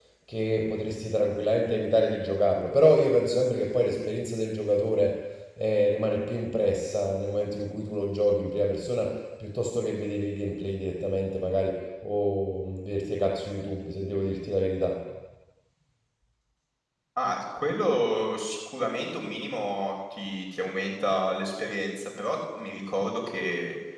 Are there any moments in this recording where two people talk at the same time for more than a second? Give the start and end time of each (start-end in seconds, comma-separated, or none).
none